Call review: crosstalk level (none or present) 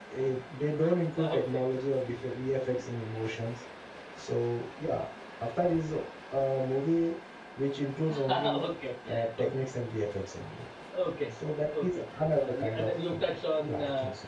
present